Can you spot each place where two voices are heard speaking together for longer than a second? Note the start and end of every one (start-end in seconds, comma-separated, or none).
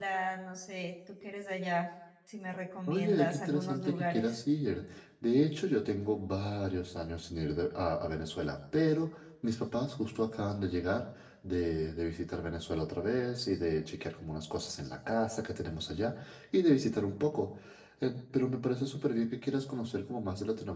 2.9-4.3